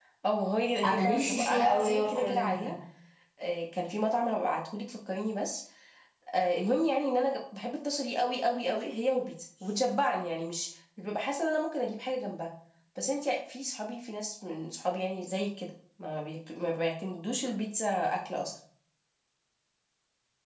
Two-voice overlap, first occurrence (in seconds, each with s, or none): 0.8 s